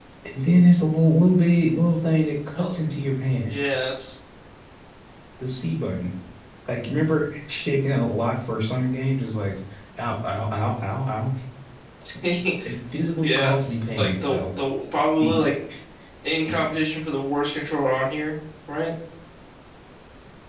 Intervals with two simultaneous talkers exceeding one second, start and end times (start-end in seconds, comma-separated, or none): 13.2-14.5